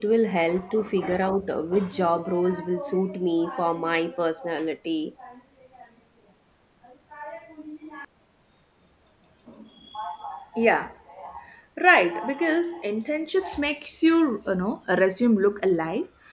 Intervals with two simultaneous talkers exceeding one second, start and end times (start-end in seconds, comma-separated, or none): none